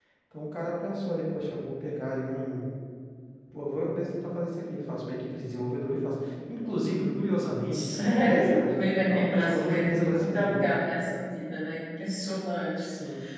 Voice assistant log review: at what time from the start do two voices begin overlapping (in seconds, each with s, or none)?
7.7 s